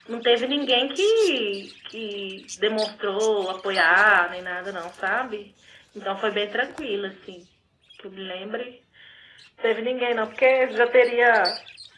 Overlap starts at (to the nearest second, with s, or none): none